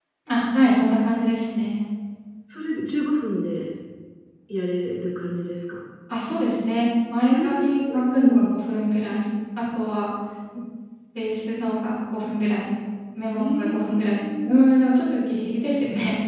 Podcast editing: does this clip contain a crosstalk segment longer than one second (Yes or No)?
Yes